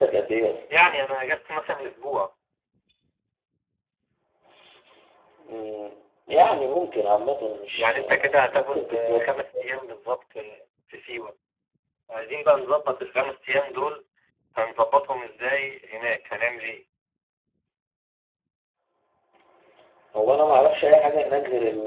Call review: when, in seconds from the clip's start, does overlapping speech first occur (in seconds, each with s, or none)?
7.7 s